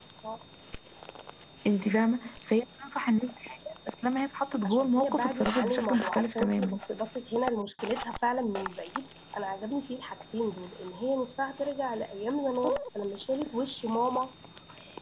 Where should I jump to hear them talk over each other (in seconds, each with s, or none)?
4.6 s